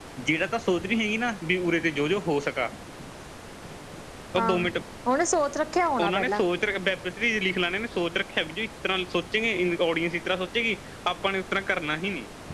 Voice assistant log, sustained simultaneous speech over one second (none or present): none